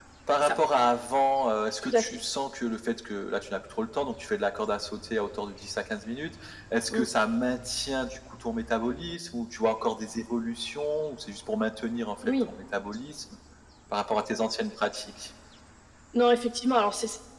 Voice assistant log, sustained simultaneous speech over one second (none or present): none